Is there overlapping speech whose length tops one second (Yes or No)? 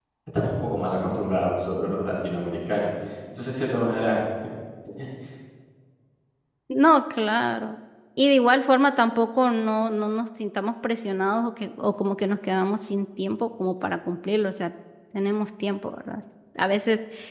No